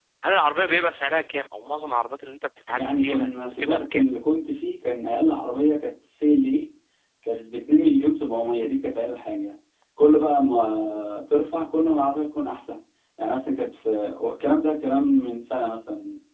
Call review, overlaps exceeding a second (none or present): present